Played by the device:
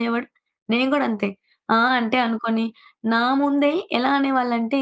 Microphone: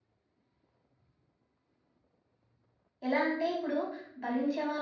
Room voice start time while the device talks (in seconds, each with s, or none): 3.1 s